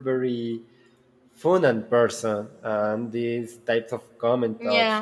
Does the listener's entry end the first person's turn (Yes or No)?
No